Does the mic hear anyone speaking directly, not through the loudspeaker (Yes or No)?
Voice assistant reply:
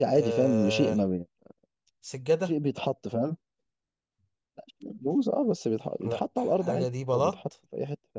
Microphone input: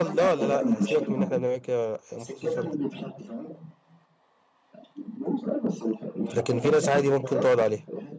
Yes